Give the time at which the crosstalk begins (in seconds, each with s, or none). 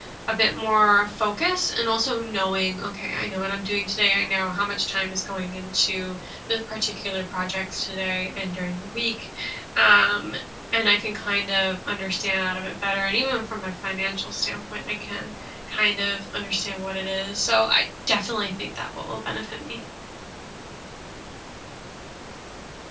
none